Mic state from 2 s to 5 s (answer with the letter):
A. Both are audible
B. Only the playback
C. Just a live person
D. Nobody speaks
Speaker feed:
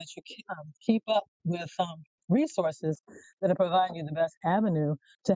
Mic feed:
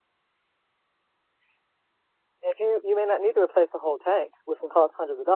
C